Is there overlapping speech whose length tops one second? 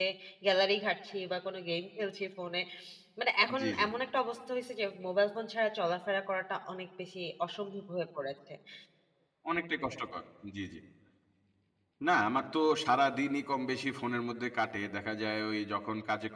No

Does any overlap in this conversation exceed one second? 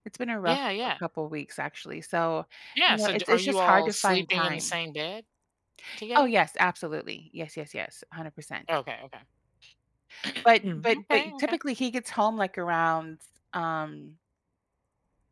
Yes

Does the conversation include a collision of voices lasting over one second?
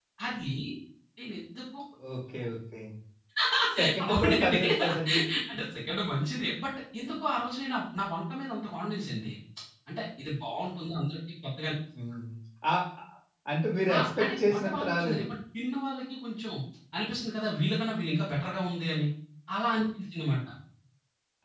Yes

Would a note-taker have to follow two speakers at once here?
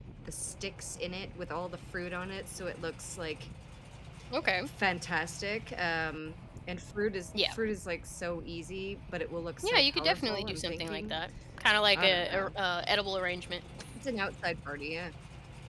Yes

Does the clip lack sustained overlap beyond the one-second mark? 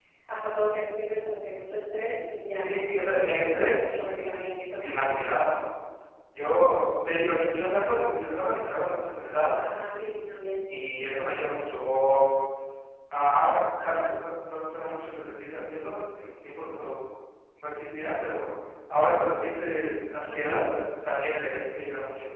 No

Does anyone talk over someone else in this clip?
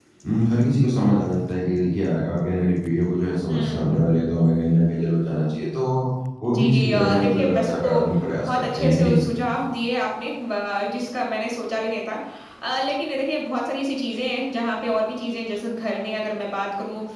Yes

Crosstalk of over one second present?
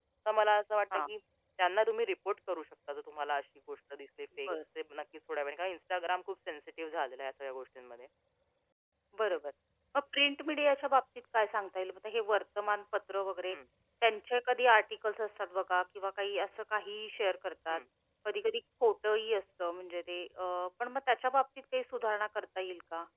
No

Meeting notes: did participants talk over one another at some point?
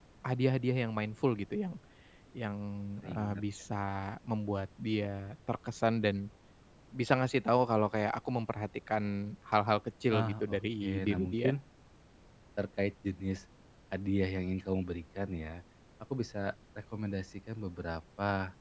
Yes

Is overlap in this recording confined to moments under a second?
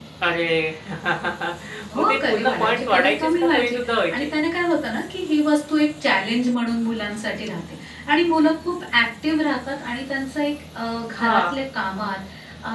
No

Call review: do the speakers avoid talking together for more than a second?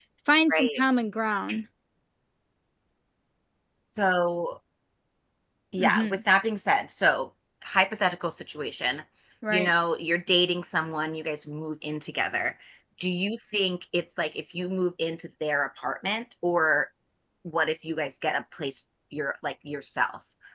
Yes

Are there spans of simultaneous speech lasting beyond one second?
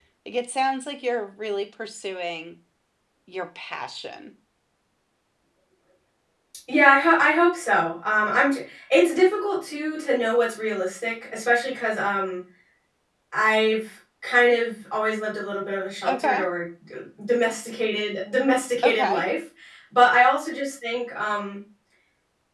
No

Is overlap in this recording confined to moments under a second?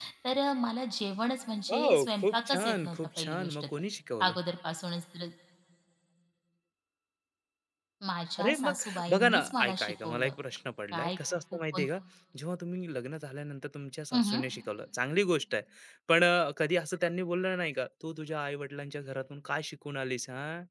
No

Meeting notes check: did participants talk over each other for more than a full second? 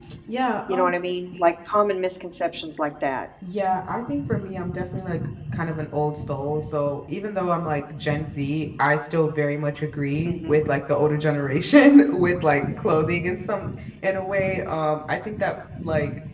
No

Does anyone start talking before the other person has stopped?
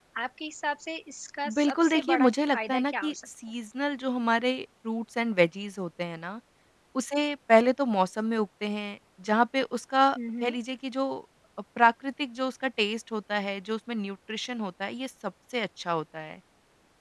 Yes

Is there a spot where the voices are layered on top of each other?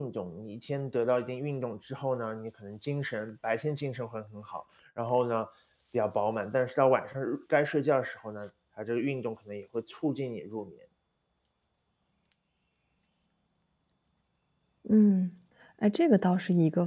No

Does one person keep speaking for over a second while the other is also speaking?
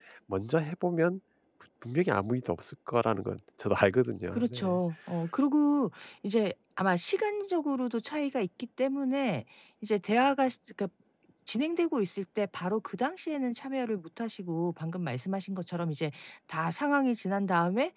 No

